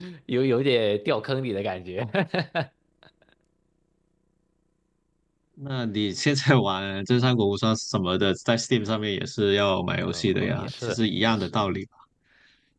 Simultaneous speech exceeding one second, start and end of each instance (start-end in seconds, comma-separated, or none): 10.1-11.6